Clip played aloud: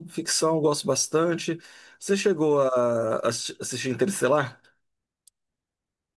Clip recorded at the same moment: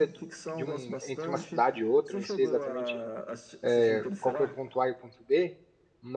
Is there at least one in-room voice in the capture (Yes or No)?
Yes